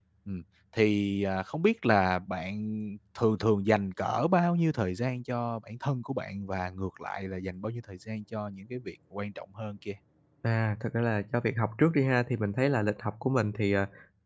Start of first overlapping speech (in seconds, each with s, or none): none